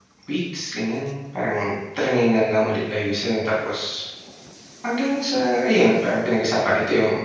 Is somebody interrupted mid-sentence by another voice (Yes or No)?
No